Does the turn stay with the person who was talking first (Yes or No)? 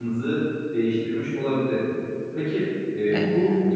Yes